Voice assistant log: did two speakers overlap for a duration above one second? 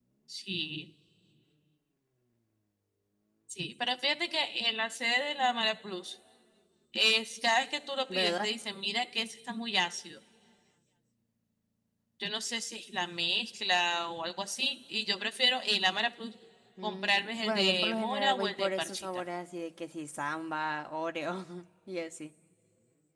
Yes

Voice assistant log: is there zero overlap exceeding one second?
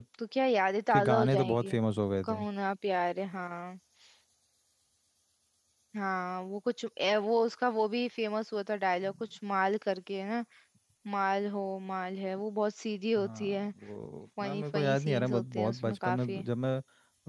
No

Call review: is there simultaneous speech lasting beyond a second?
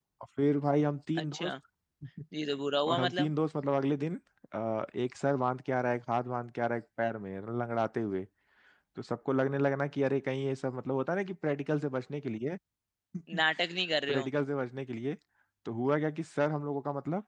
No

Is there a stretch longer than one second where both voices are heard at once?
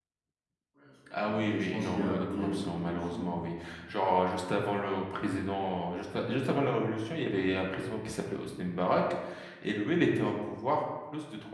Yes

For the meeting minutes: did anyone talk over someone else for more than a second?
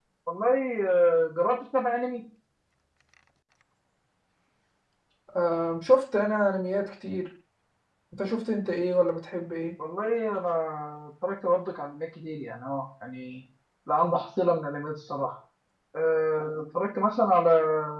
No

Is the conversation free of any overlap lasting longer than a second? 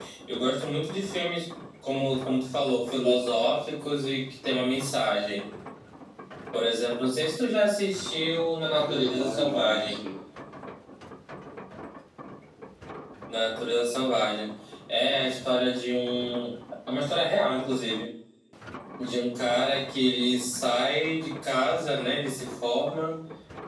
No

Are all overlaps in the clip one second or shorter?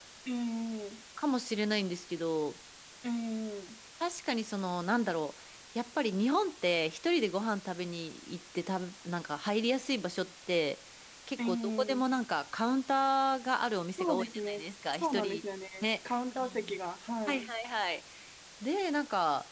No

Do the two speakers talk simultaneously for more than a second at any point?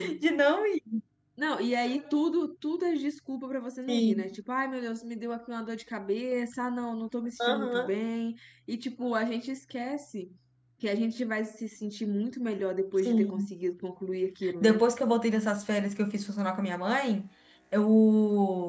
No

